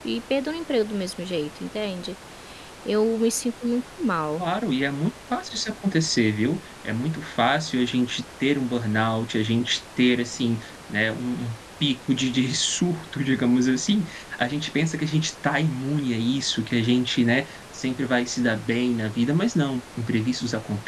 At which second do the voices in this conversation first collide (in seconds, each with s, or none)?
none